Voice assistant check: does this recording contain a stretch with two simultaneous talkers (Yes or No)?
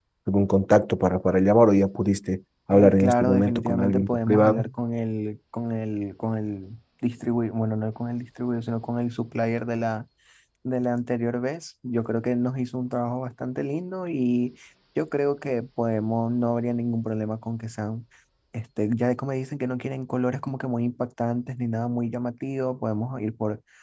Yes